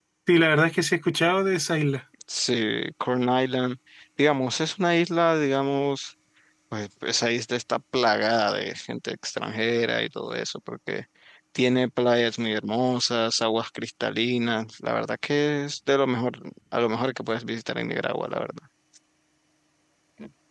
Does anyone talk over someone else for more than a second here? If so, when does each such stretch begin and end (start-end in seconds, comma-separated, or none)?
none